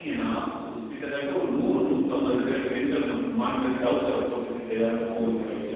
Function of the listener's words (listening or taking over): listening